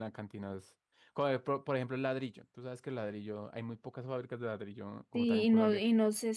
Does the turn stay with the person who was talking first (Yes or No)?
No